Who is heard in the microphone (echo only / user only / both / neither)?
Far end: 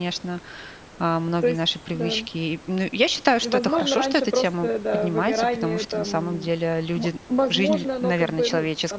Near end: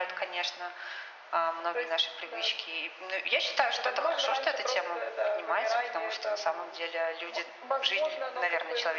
echo only